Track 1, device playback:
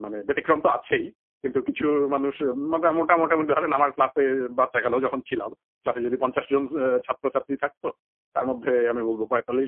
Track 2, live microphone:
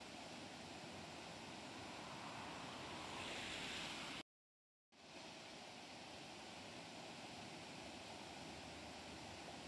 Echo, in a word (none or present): none